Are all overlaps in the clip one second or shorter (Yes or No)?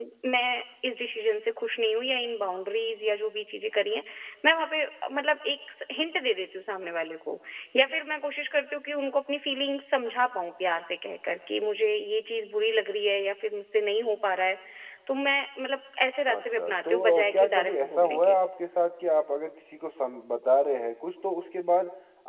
No